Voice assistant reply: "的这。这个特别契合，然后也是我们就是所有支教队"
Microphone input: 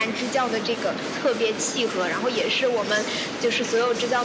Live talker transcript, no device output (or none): none